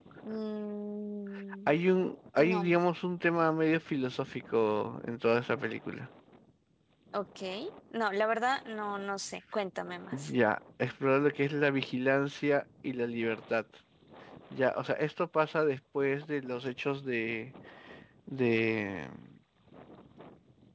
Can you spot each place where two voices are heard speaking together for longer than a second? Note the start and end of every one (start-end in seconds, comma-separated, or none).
none